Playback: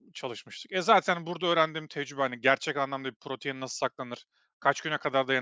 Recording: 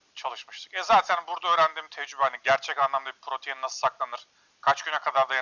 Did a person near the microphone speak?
No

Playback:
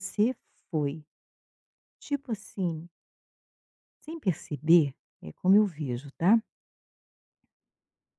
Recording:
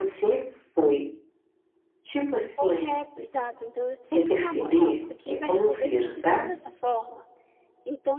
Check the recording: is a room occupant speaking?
Yes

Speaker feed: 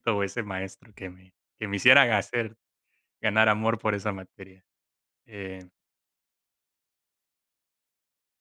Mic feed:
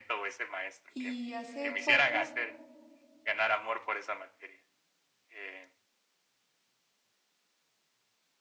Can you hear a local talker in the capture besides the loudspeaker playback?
Yes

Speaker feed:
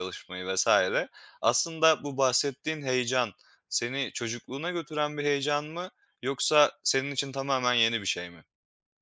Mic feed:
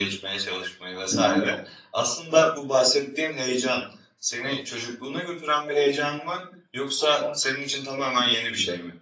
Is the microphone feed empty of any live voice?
No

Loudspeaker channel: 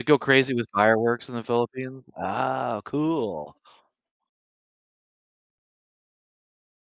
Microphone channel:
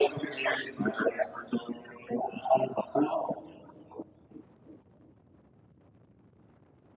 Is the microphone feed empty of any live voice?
Yes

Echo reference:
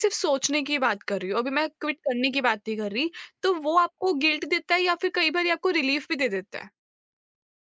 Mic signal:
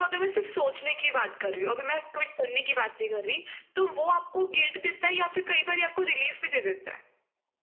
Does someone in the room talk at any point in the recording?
No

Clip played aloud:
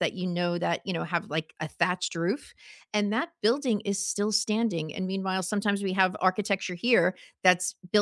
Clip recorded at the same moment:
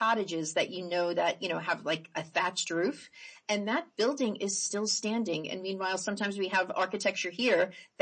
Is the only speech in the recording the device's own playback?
Yes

